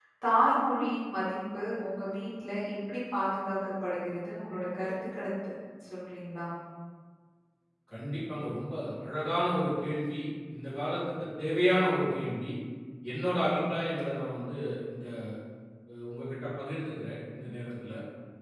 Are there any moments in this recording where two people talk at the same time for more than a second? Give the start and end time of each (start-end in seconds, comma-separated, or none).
none